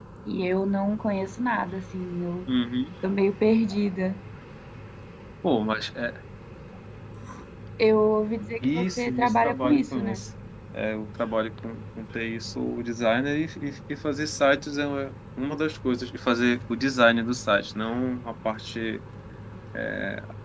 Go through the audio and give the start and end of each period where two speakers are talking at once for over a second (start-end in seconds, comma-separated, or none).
8.7-10.2